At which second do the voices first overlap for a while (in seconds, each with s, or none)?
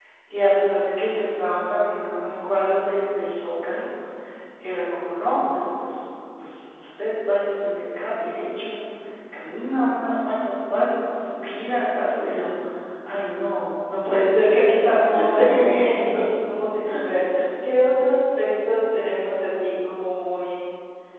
14.9 s